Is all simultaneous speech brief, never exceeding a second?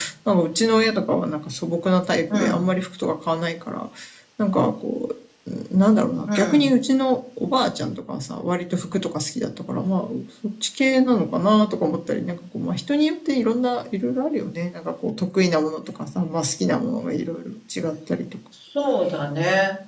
Yes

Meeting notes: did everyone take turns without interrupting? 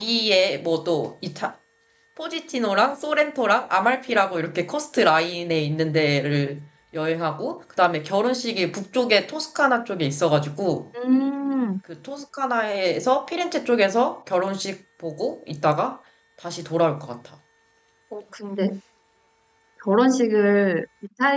Yes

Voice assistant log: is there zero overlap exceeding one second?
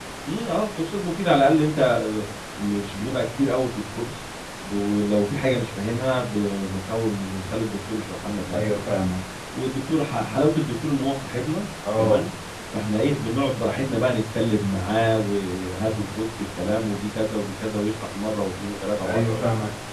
Yes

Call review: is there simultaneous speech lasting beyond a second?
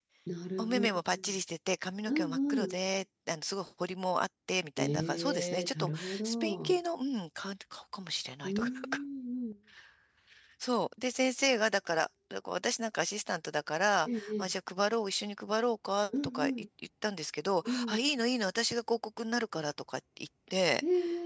Yes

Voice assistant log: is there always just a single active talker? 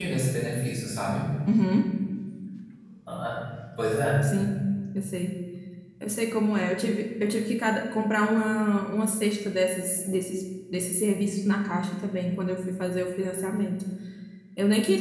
Yes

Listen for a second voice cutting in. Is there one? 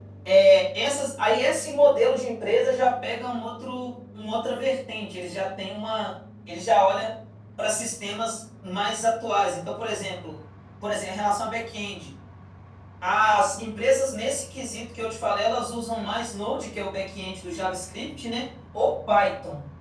No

